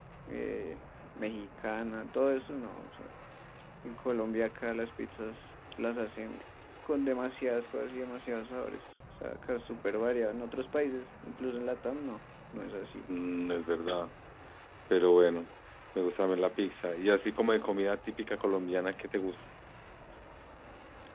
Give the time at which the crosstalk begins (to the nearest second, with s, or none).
none